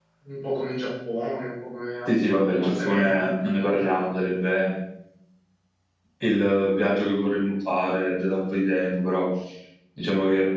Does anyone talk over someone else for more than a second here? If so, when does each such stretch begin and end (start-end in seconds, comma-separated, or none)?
2.1-4.0